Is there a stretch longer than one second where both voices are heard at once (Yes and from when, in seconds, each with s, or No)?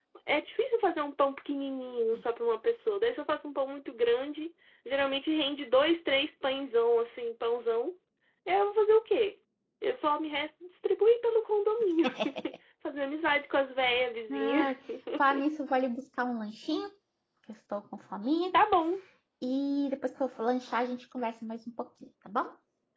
No